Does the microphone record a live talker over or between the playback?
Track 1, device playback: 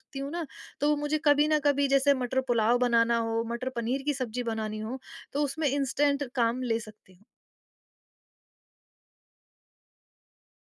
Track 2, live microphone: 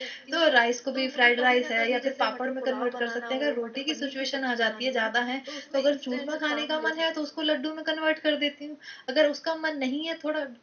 Yes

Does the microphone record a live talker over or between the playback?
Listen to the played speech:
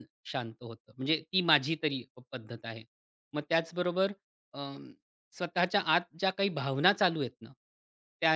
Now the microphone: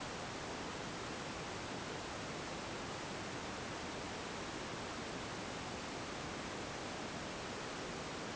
No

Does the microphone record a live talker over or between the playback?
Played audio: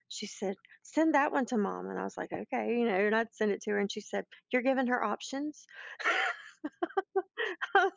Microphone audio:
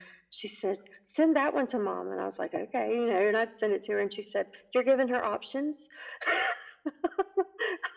No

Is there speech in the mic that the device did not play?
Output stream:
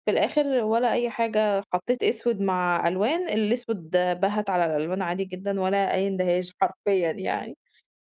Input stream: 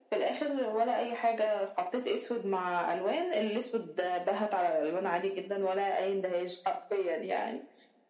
No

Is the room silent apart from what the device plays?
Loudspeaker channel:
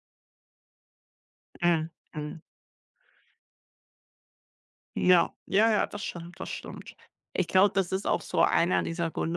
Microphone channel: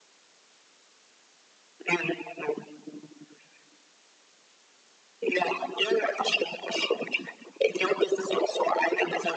Yes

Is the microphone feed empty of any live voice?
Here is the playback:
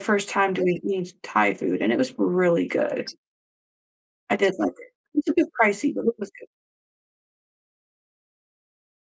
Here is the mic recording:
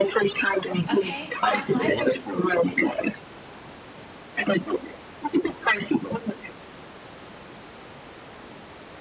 No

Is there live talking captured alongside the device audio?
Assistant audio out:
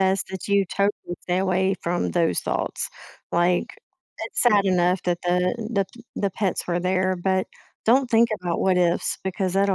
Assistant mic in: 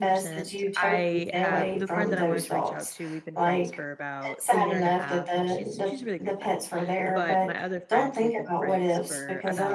Yes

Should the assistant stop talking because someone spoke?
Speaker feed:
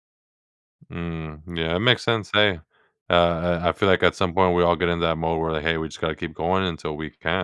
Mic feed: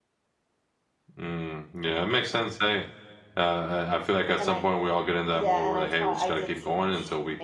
Yes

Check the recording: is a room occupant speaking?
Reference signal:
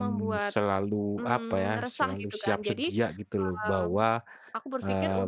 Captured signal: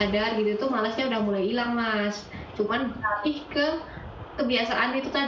Yes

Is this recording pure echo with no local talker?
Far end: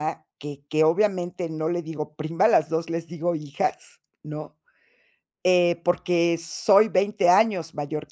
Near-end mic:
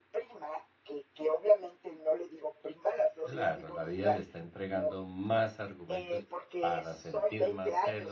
No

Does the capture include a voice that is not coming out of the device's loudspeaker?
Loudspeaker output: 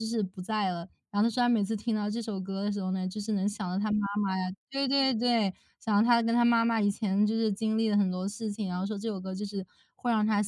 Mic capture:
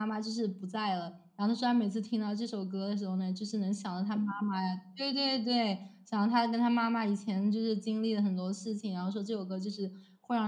No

